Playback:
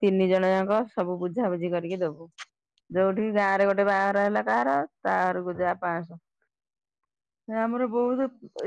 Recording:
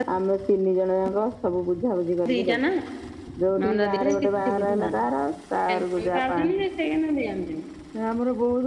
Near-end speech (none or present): present